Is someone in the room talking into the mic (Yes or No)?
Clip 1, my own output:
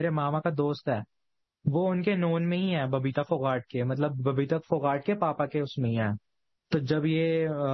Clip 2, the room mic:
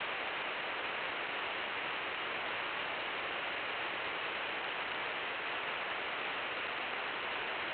No